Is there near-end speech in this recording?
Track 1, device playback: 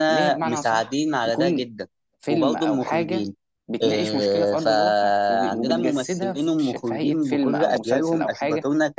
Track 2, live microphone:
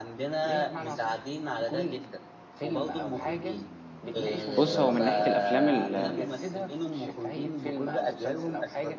Yes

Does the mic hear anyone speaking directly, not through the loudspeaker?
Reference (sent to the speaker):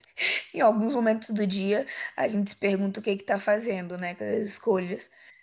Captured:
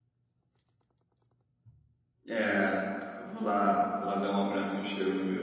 Yes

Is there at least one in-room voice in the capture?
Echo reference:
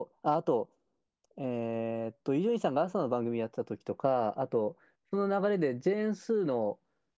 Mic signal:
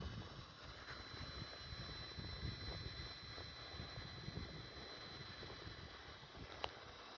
No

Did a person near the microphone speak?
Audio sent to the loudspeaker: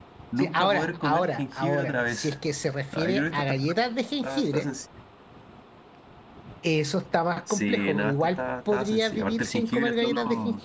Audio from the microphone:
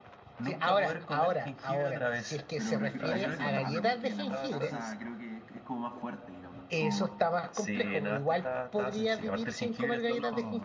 Yes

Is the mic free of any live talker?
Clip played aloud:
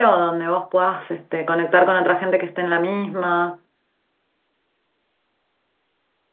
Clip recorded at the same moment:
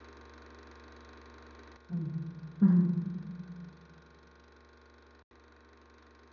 No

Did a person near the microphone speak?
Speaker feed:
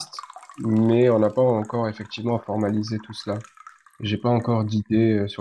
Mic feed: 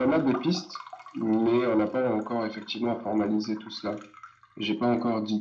No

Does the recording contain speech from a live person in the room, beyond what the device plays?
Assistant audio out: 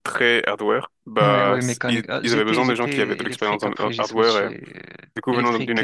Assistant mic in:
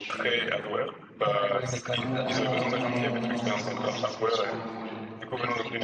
Yes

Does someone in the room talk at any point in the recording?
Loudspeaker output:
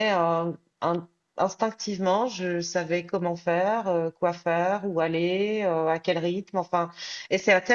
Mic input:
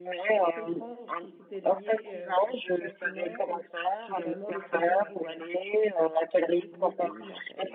Yes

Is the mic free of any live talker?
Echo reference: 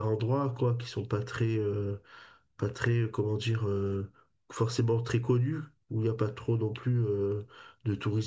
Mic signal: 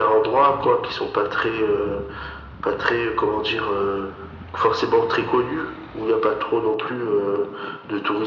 Yes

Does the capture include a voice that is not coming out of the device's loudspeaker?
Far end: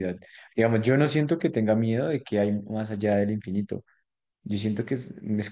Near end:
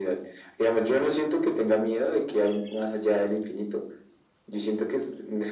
No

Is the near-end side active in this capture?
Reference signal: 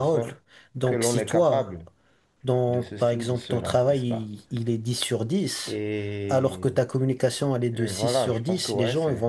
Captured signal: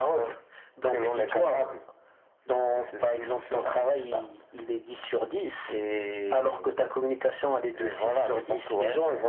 No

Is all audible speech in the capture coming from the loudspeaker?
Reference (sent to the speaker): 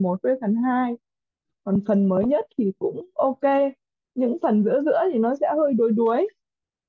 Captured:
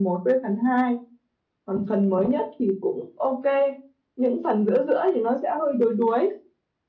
Yes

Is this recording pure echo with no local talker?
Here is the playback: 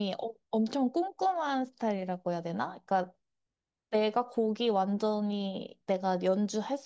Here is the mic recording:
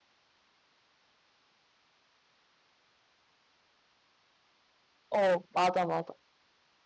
No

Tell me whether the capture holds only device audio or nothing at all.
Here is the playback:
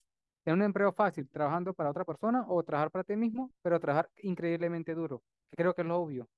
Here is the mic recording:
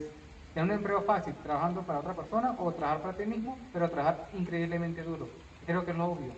Yes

